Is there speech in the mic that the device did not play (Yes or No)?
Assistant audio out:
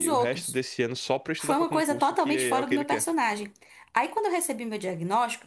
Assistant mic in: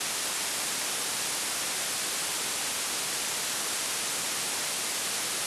No